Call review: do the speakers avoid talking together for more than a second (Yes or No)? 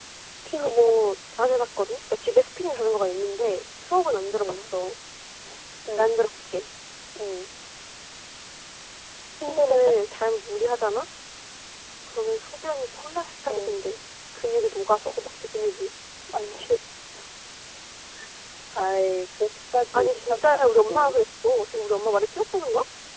No